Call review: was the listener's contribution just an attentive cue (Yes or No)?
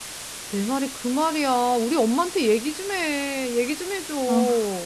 No